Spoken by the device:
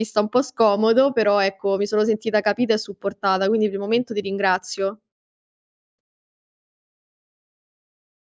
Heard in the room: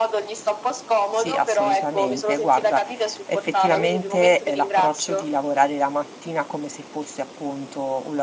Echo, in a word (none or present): present